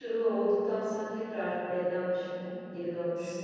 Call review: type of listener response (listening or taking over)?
taking over